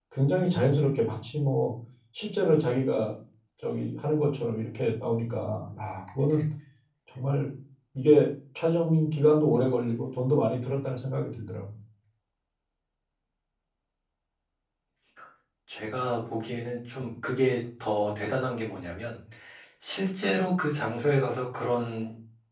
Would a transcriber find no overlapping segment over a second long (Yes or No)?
Yes